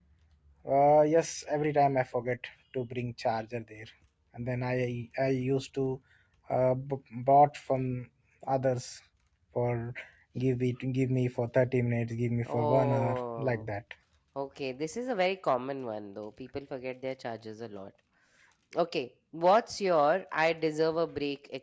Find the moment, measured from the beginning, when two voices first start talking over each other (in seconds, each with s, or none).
12.4 s